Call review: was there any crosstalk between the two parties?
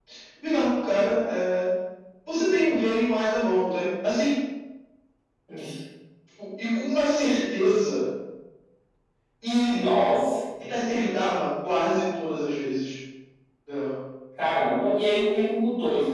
No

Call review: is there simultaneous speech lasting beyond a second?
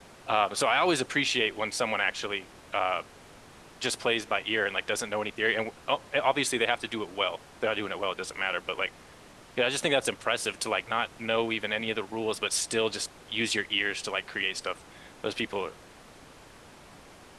No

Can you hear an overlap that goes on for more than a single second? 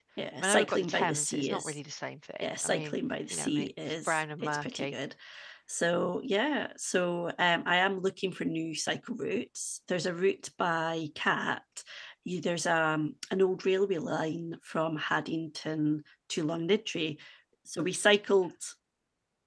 Yes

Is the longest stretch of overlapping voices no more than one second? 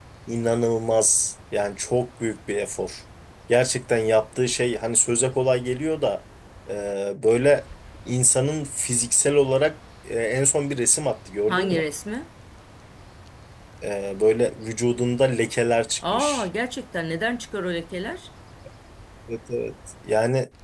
Yes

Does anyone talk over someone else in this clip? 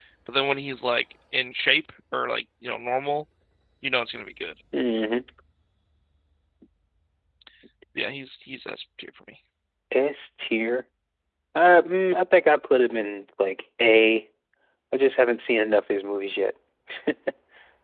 No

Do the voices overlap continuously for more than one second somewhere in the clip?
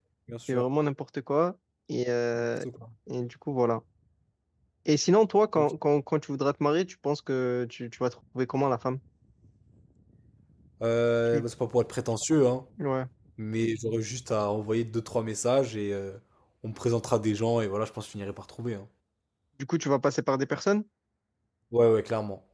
No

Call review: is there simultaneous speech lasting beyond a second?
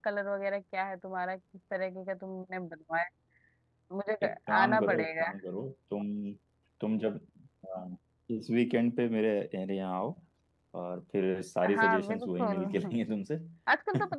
Yes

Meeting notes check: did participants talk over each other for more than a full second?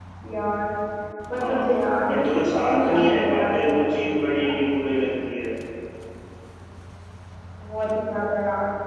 Yes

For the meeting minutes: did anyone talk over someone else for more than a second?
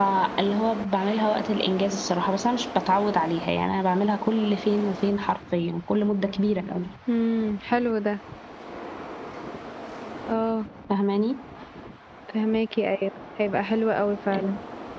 No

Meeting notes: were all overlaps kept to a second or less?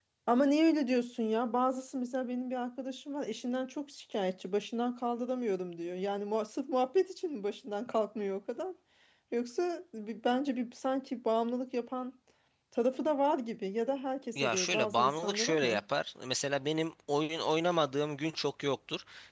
No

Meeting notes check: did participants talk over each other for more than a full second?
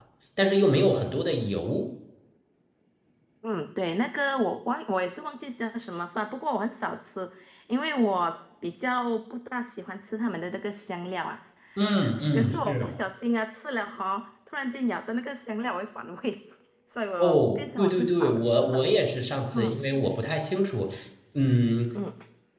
Yes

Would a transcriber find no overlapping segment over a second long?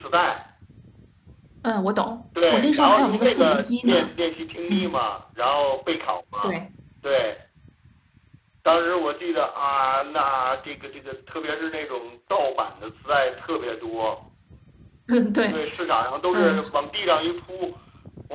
No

